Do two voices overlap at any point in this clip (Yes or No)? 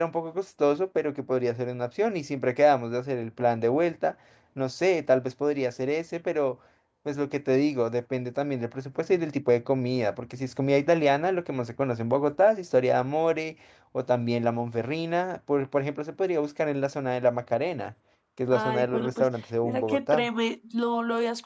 Yes